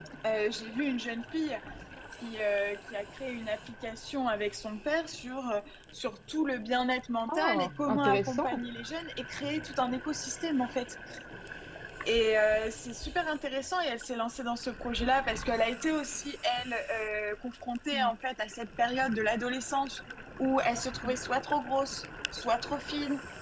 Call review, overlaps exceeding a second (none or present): present